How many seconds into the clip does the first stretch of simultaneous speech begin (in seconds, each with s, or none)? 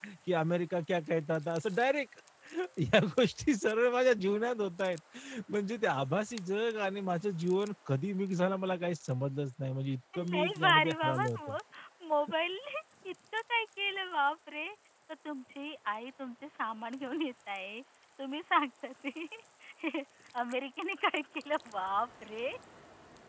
10.1 s